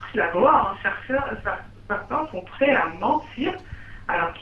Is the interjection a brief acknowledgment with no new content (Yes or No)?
Yes